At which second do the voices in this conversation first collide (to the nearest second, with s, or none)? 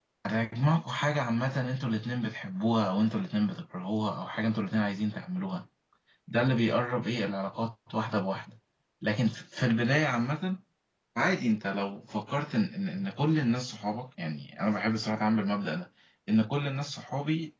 none